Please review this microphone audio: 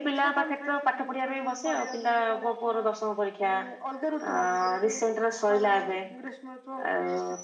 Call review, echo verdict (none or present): present